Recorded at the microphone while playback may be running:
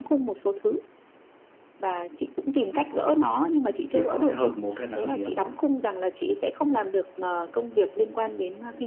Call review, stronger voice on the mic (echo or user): user